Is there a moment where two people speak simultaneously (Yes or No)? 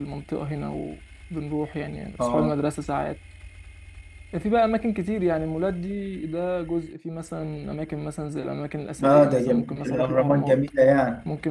Yes